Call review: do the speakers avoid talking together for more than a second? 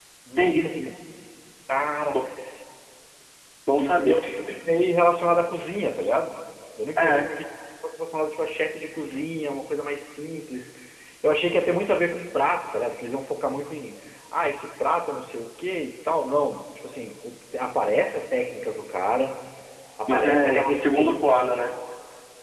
No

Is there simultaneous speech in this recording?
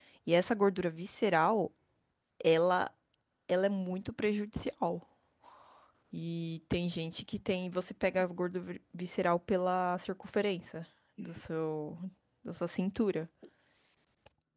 No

